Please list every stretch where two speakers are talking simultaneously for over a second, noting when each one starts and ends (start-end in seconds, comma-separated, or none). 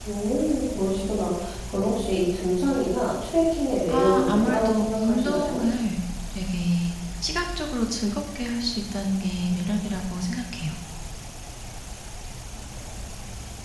3.9-5.6